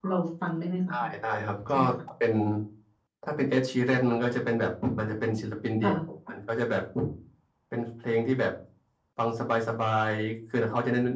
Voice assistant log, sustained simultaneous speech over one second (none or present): none